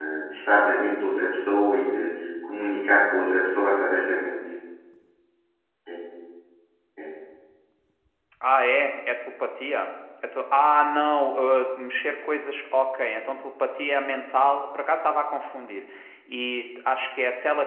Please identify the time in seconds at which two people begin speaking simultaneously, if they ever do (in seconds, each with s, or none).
none